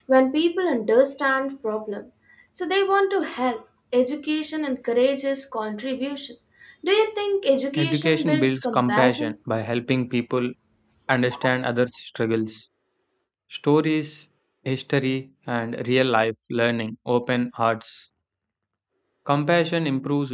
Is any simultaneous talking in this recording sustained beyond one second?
Yes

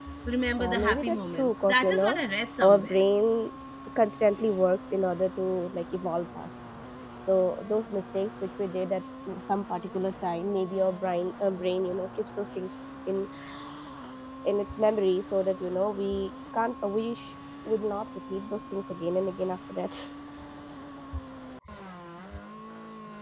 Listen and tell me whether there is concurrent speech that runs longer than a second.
Yes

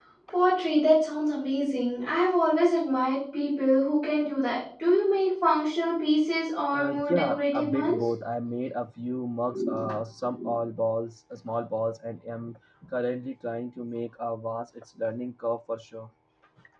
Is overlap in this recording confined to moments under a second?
No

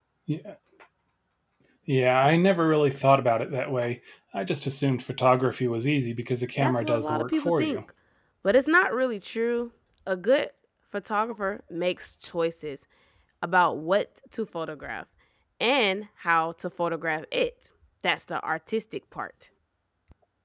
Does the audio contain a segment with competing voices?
Yes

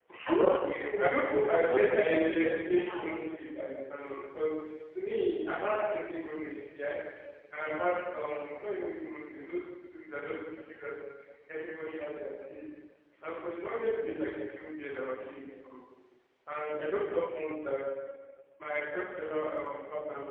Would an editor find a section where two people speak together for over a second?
Yes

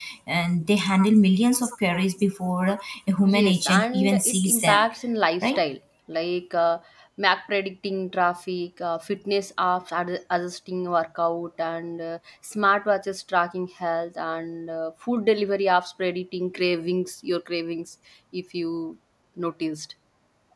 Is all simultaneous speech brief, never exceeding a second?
No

